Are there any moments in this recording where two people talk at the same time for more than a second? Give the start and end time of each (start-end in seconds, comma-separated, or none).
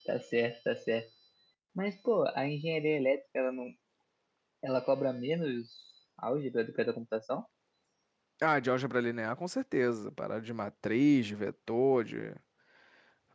none